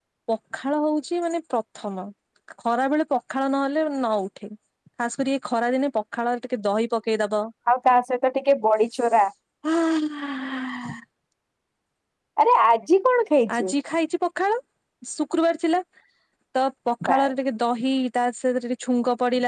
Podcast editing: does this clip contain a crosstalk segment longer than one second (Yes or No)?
No